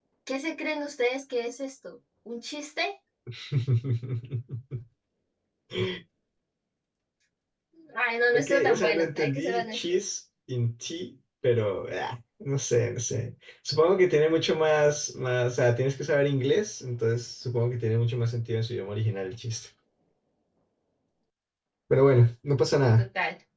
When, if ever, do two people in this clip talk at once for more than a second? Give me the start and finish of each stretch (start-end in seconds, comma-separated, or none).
8.4-10.1